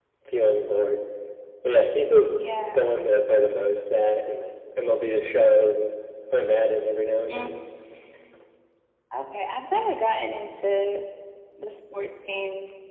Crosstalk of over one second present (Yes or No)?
No